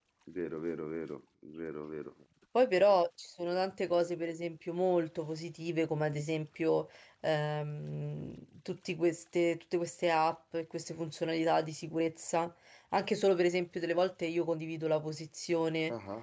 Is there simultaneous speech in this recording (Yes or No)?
No